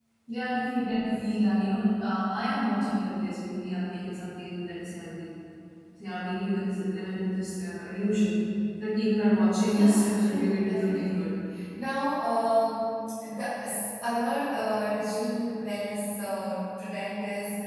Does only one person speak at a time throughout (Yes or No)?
No